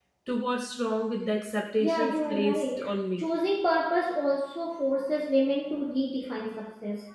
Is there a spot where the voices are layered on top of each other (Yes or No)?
Yes